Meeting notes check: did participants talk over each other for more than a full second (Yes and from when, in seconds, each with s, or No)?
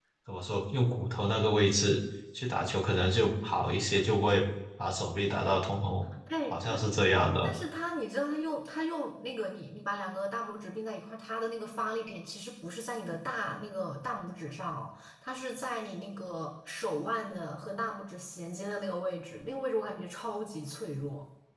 No